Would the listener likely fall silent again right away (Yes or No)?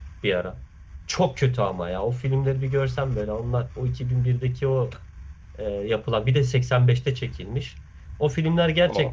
Yes